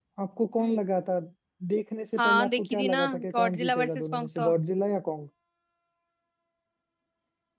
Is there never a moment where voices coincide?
No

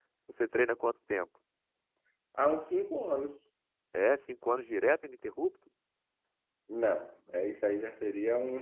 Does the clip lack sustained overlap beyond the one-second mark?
Yes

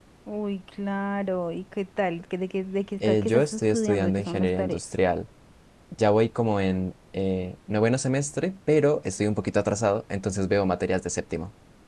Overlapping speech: Yes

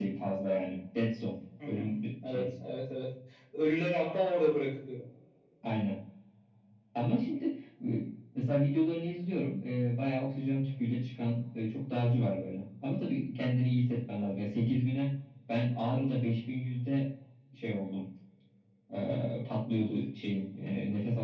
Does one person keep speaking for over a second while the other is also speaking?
No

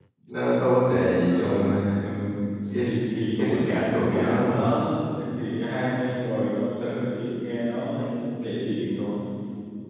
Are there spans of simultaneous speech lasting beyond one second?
Yes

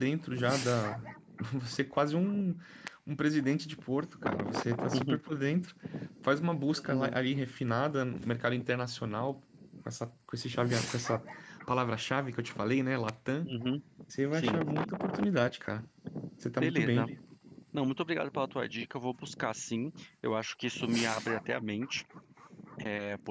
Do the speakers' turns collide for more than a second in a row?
No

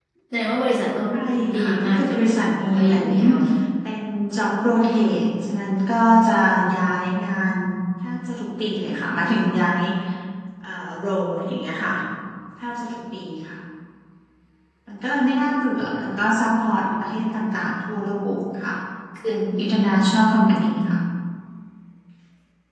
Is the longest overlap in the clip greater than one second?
Yes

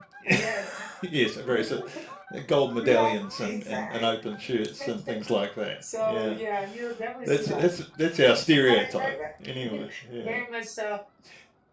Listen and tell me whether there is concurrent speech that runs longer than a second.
Yes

